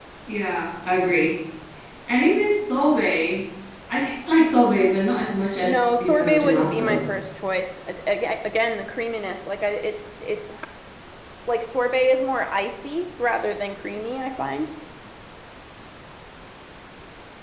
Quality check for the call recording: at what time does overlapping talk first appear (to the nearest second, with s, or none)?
6 s